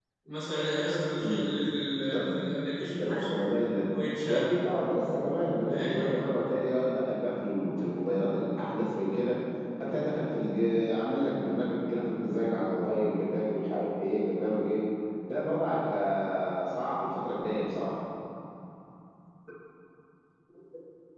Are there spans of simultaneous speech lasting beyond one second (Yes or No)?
No